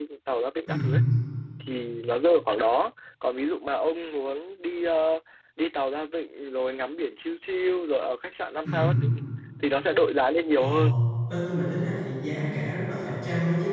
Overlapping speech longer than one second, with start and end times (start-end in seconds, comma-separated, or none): none